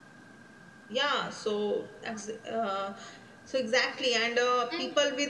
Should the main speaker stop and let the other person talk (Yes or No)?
No